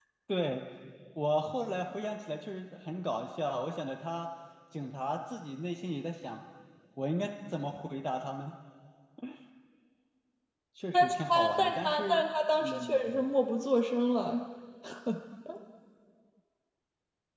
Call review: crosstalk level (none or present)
present